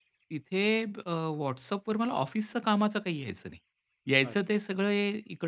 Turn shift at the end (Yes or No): No